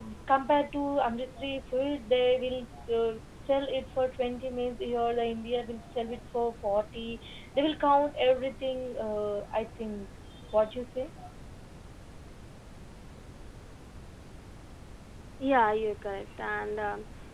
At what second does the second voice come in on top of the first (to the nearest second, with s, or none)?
none